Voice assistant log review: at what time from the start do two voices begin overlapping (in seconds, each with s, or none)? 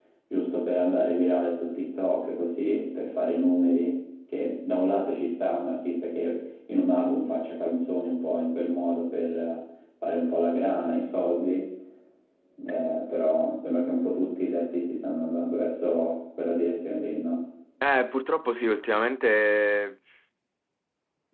none